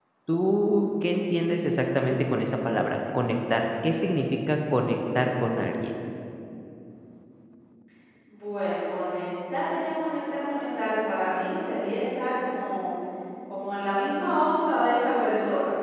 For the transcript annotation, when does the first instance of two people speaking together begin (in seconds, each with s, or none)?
none